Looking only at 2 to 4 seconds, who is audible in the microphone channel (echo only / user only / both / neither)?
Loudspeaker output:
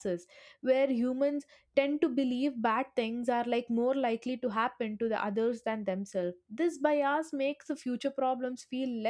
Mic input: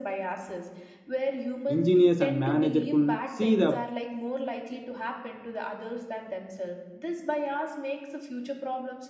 both